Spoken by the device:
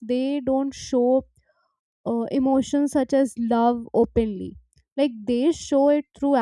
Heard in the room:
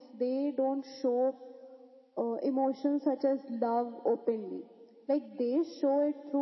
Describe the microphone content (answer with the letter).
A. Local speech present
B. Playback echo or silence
B